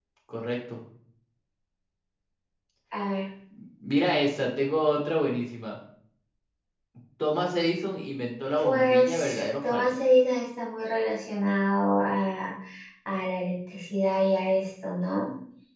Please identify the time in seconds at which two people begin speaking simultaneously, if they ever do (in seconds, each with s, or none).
8.6 s